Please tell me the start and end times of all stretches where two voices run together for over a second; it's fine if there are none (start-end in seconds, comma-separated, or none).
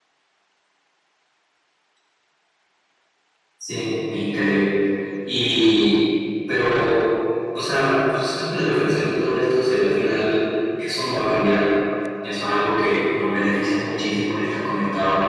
none